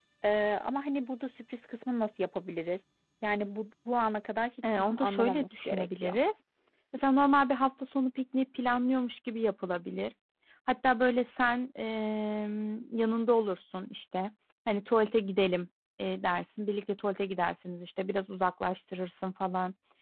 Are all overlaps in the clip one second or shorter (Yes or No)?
No